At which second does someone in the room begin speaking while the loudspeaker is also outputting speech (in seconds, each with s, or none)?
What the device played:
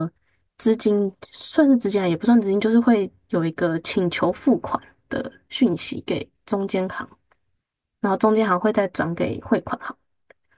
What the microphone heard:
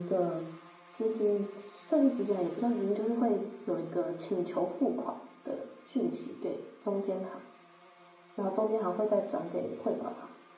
none